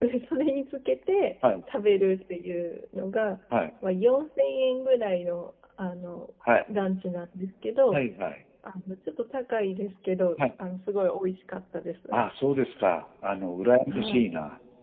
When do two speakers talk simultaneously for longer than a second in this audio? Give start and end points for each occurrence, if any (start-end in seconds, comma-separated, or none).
none